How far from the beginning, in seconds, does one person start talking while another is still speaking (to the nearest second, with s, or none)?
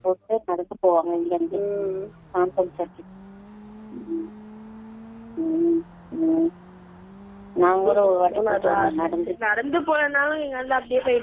8 s